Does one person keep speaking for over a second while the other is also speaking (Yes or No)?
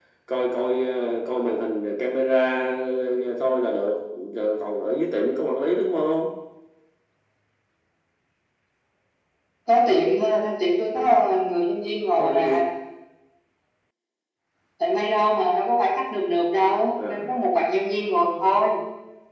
No